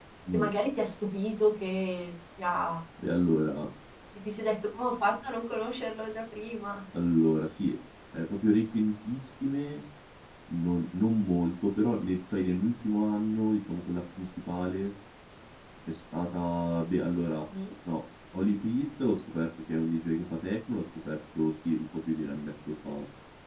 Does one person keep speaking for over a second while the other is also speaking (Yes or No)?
No